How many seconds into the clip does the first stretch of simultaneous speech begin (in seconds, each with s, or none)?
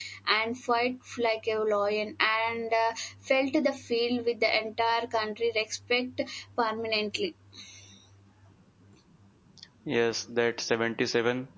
none